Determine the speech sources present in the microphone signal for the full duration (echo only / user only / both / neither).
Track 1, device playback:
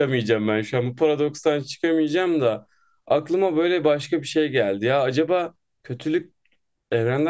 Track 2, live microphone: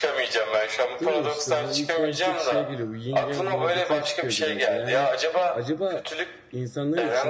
both